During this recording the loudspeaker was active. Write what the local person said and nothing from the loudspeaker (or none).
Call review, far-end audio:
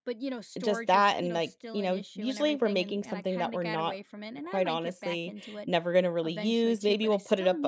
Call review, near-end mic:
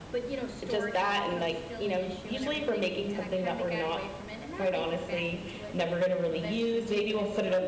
none